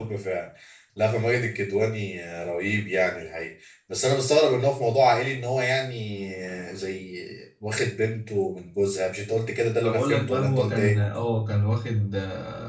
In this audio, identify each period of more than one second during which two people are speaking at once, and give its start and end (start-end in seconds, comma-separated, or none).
9.8-11.0